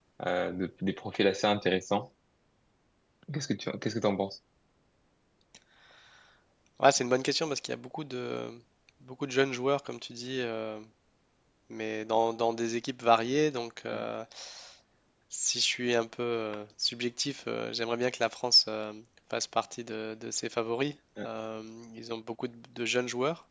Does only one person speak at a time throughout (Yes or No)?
Yes